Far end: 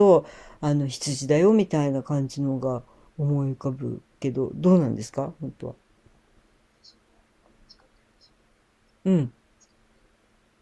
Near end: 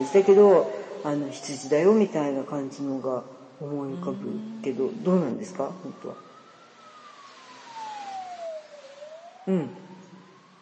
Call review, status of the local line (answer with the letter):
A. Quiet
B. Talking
B